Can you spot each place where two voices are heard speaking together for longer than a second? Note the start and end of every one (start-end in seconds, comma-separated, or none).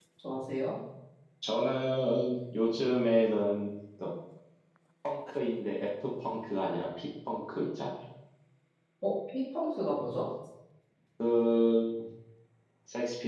none